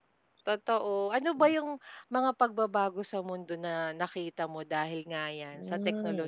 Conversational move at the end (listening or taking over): taking over